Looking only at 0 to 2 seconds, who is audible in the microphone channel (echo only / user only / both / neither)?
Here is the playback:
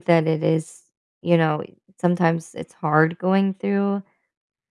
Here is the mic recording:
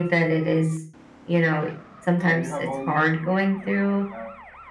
echo only